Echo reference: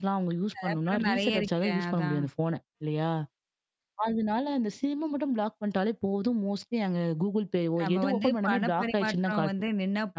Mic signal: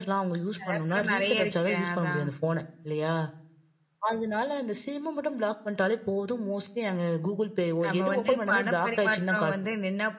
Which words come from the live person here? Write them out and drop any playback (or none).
none